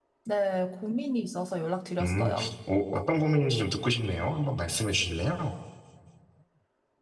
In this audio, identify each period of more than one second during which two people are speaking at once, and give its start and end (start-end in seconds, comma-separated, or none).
none